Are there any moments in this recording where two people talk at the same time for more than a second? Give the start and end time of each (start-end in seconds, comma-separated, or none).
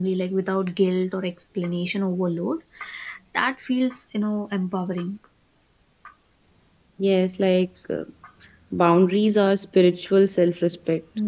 none